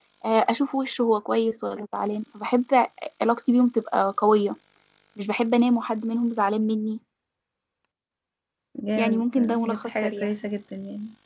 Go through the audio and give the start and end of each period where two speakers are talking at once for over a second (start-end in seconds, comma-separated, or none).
9.0-10.3